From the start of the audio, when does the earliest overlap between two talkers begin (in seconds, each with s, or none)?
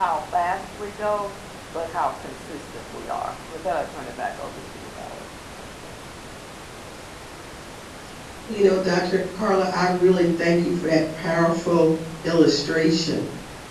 none